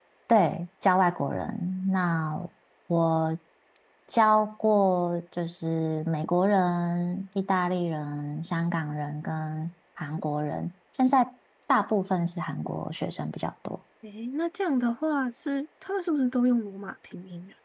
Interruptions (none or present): none